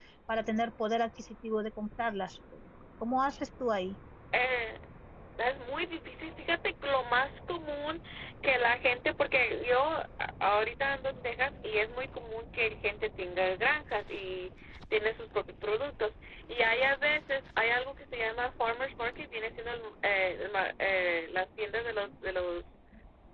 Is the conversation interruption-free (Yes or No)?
Yes